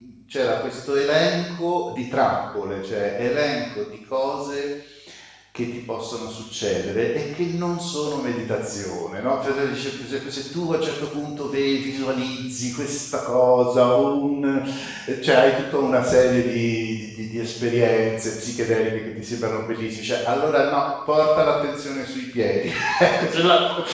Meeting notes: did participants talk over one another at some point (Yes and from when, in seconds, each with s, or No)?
No